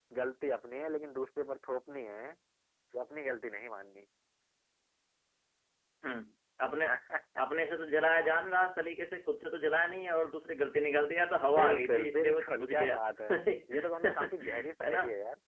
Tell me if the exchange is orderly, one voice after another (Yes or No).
No